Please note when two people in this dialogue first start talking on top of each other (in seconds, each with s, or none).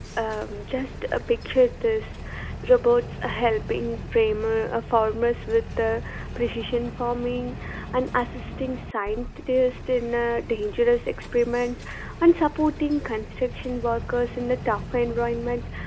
none